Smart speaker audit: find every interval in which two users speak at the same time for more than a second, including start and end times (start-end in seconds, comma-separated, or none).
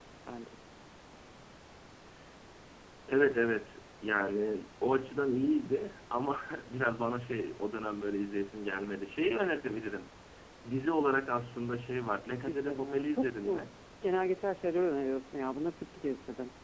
12.4-13.7